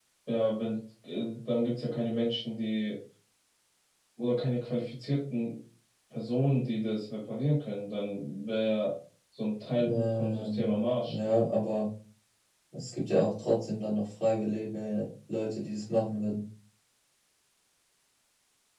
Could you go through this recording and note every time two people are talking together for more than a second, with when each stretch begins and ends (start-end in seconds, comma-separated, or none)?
9.9-11.2